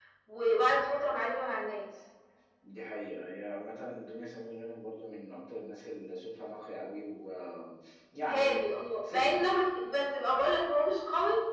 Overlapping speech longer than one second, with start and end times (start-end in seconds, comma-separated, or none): 8.3-9.5